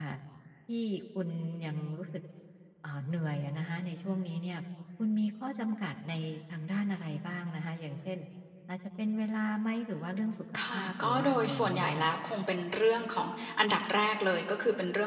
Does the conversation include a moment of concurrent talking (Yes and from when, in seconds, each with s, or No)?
Yes, from 10.5 s